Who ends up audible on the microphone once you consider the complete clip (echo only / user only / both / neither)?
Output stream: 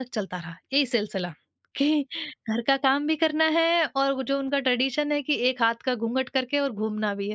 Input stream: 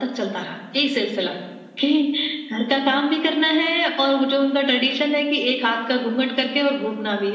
echo only